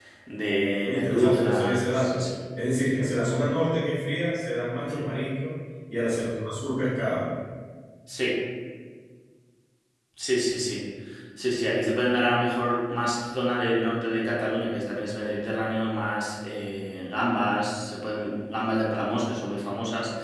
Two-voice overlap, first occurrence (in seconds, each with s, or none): 0.8 s